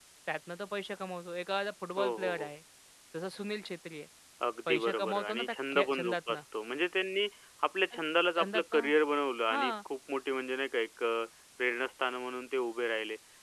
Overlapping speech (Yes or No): Yes